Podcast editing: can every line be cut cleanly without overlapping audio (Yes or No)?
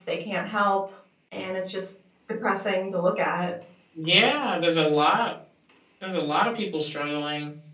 Yes